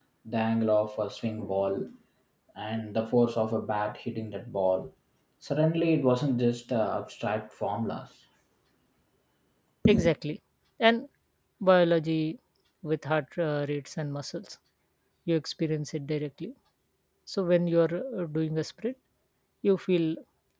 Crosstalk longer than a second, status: none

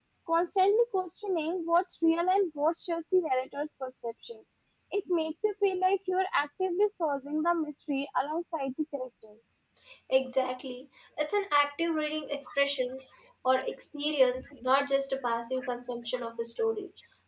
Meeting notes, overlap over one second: none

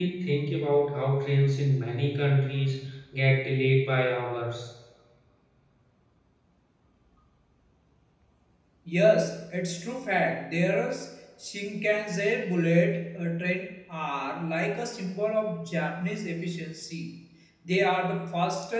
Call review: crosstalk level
none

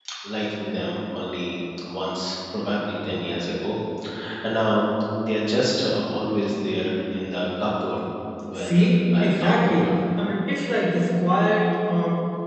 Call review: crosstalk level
present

